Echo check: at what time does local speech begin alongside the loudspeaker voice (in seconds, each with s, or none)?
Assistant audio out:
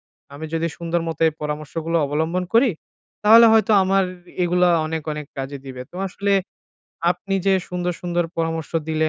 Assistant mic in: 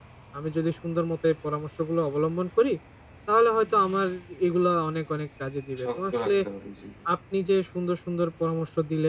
5.8 s